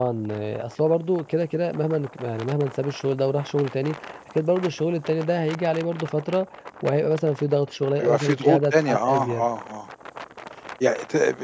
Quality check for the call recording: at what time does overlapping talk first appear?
8 s

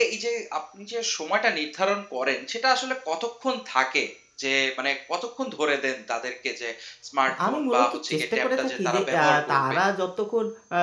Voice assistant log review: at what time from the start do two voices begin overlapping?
7 s

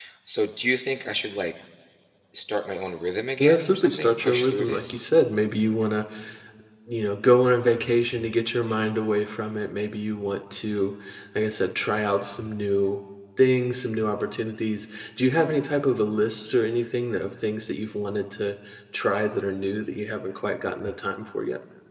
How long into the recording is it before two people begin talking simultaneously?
3 s

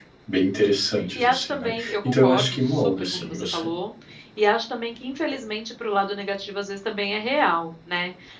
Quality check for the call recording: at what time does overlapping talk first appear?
1 s

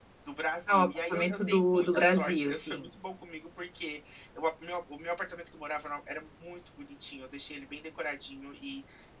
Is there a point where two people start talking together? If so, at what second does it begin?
1 s

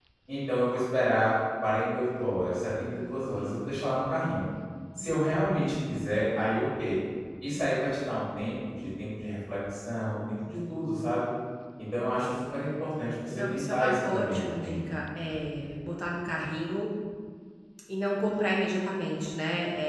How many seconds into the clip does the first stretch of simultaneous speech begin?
13 s

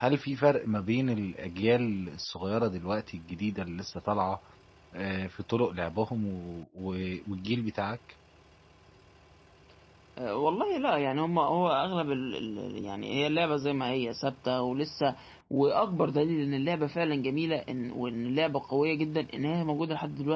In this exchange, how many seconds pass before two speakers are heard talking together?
none

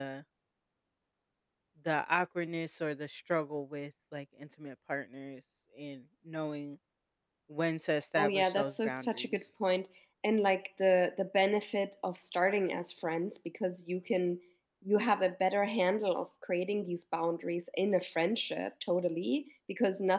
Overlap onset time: 8 s

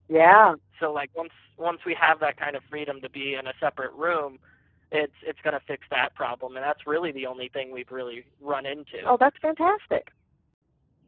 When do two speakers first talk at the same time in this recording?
none

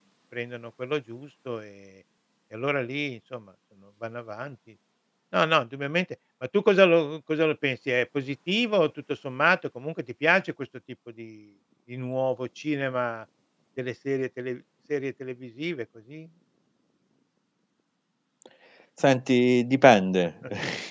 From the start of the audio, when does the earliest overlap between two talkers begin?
none

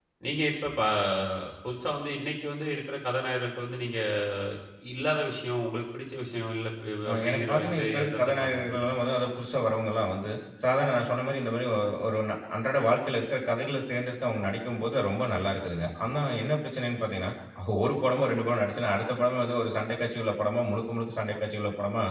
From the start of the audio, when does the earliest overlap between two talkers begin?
7 s

